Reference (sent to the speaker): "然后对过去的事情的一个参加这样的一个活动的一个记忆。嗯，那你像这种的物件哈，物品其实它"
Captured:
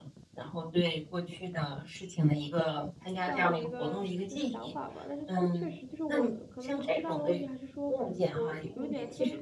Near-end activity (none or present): present